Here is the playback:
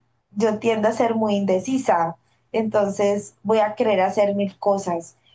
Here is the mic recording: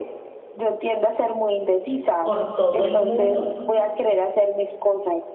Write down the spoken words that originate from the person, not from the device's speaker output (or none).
por todo el mundo